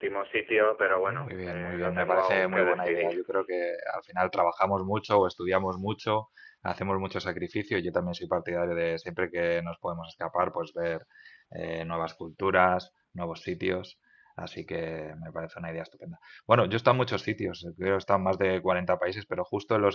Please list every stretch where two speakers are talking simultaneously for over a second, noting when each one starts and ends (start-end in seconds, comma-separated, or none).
1.1-3.2